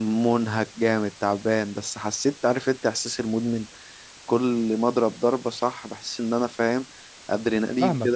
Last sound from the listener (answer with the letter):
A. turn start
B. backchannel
A